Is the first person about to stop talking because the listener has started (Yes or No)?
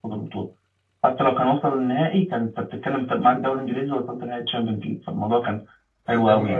No